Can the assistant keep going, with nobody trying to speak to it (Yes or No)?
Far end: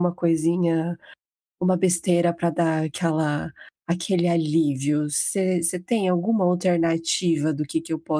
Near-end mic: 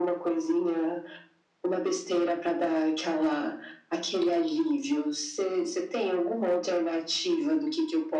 Yes